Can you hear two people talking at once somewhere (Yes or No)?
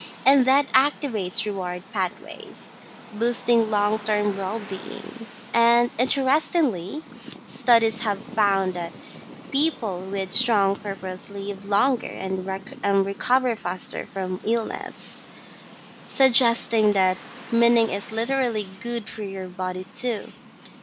No